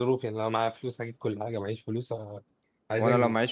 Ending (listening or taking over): taking over